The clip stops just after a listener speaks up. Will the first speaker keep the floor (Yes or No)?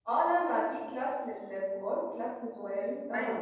No